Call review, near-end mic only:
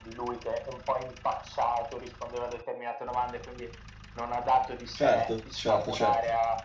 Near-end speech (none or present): present